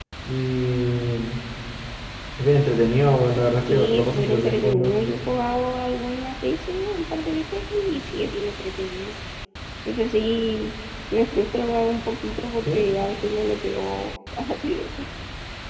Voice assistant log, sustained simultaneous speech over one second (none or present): present